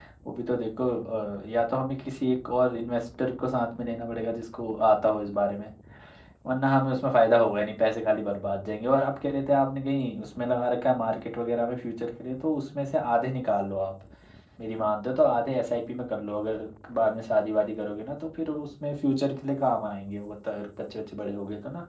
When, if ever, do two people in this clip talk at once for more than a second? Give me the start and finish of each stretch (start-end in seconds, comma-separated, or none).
none